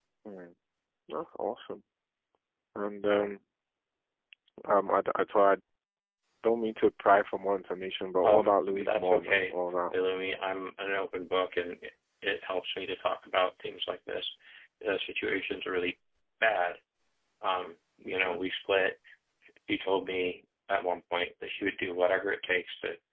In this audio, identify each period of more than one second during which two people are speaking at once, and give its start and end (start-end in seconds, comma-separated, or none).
8.2-9.5